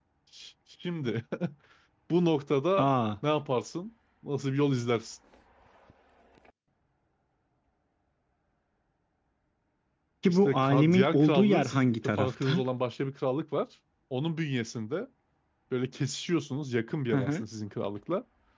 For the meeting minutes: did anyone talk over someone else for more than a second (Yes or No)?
Yes